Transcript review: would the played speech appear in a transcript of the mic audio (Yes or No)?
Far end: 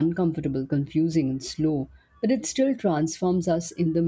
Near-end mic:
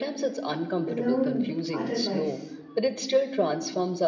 Yes